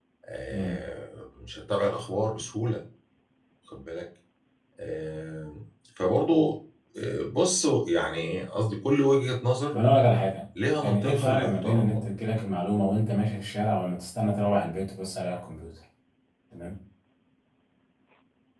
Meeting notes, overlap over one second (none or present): present